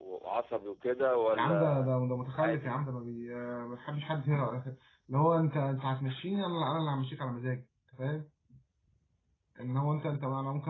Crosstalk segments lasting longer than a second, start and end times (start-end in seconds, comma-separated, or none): none